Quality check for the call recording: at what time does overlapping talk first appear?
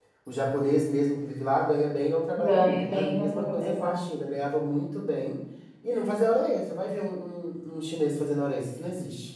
2.3 s

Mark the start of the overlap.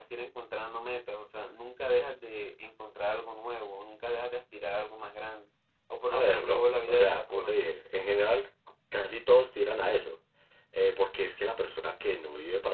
6.1 s

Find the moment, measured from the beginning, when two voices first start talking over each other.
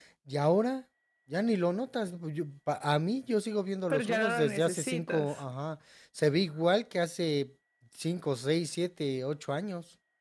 3.9 s

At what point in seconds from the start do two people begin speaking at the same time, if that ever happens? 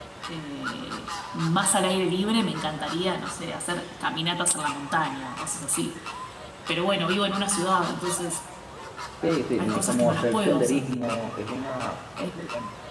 9.6 s

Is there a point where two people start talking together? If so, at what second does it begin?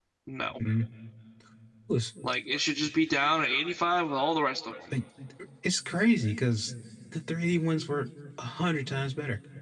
none

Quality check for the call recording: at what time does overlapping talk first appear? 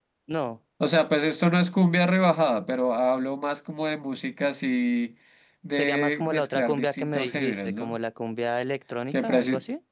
5.7 s

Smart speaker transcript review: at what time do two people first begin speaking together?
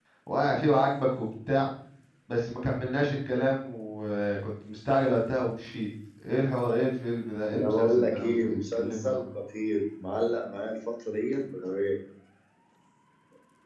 7.5 s

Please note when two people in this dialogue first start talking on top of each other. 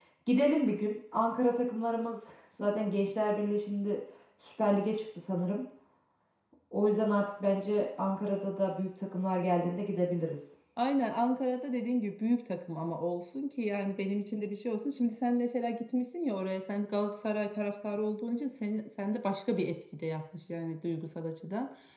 none

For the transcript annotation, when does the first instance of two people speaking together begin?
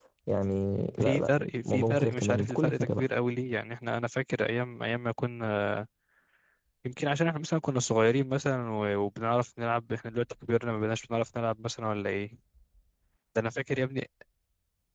1.0 s

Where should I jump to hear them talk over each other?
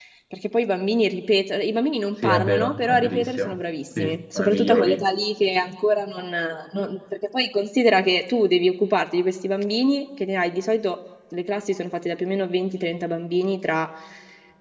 2.2 s

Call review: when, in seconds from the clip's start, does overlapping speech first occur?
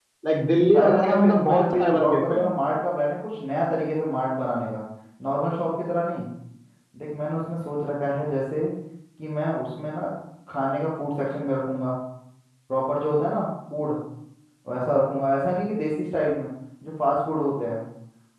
0.7 s

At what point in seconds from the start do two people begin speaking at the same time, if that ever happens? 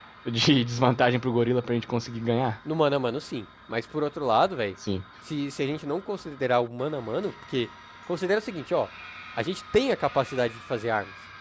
none

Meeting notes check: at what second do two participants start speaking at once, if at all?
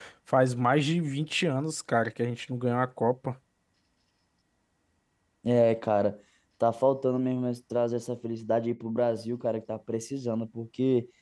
none

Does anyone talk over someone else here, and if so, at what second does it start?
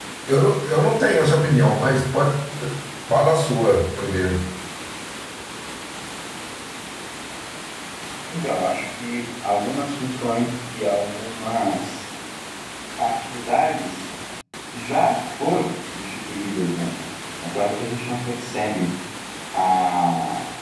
none

